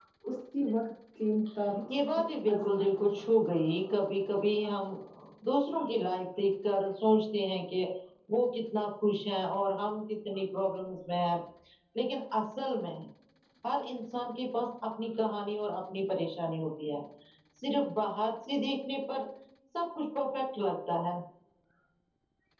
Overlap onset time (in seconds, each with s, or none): 1.9 s